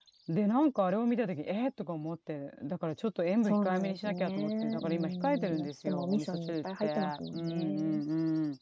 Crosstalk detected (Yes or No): Yes